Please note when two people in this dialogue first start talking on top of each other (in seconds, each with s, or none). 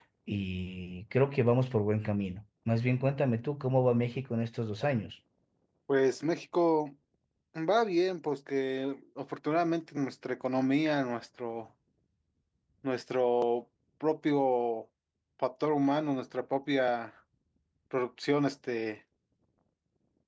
none